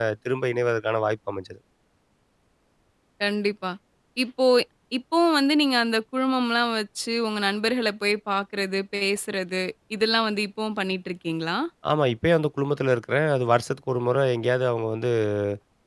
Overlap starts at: none

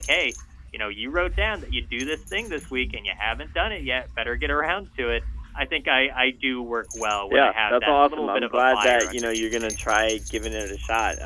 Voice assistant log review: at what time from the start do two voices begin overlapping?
7.3 s

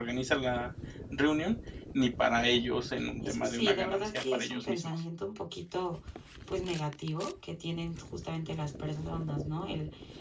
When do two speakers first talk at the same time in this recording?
3.2 s

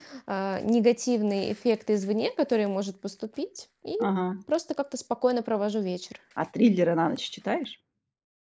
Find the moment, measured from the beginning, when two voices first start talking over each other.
none

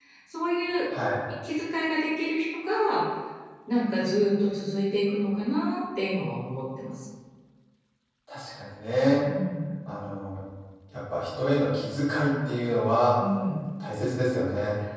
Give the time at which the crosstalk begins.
none

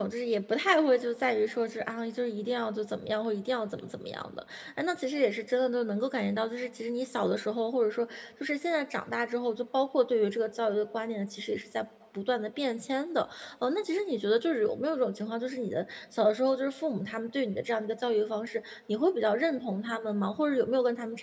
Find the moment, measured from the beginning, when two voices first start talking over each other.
none

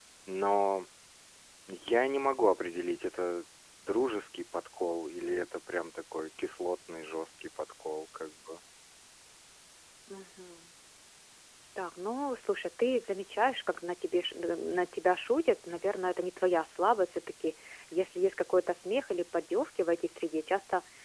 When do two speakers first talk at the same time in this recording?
none

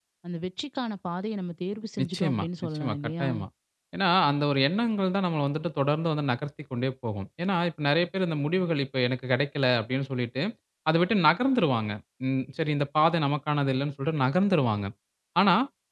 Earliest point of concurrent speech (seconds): 2.0 s

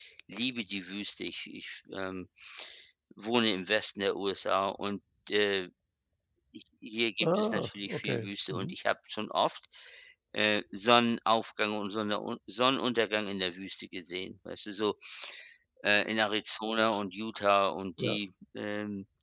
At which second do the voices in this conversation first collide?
7.2 s

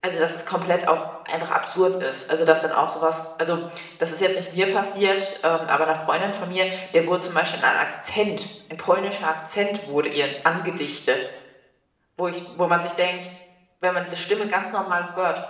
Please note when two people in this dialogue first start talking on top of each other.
none

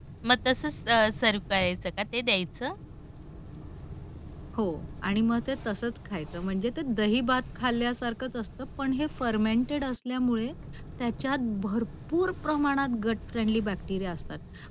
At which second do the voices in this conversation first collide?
none

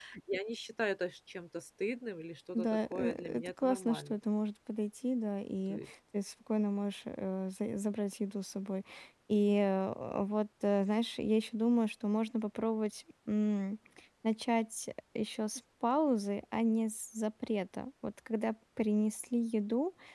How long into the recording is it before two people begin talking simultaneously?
2.5 s

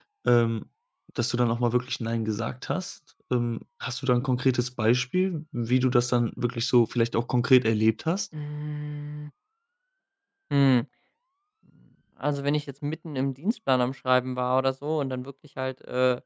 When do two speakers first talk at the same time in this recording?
none

